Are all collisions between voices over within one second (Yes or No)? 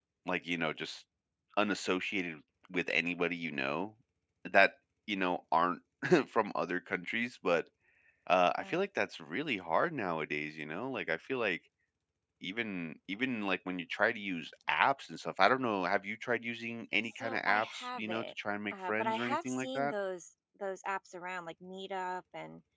No